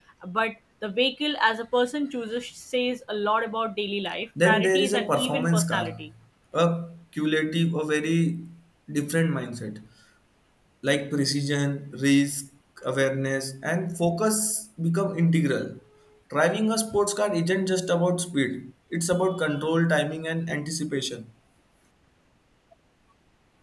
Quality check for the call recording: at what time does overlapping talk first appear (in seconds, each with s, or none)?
4.4 s